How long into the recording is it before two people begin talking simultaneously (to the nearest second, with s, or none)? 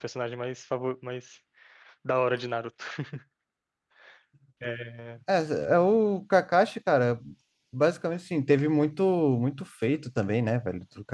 none